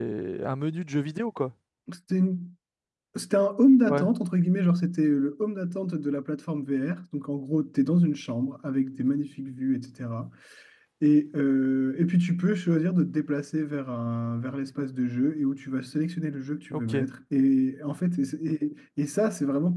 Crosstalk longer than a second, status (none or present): none